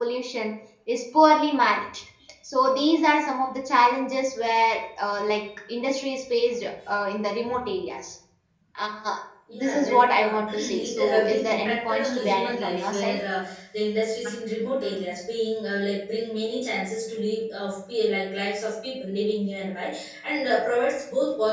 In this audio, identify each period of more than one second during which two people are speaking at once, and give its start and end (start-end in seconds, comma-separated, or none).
9.6-13.2